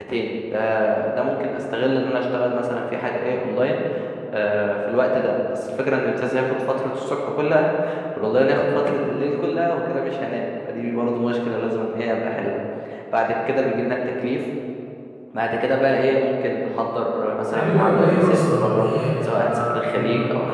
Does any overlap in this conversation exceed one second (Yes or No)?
Yes